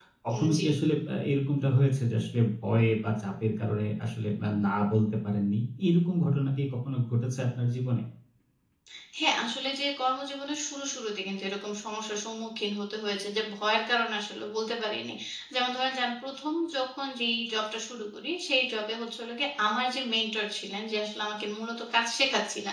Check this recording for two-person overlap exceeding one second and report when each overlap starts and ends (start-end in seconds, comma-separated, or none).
none